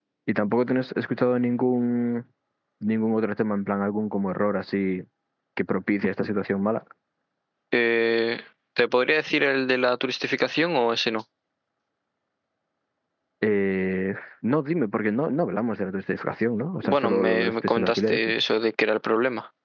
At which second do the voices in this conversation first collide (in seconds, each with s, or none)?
16.8 s